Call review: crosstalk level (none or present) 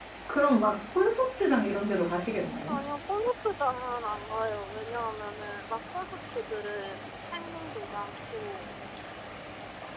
none